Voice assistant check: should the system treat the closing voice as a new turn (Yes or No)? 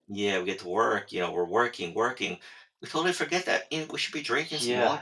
Yes